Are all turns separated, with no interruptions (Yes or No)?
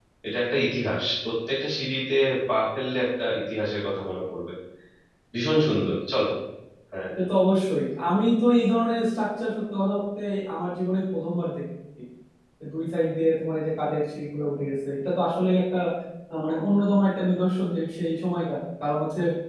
Yes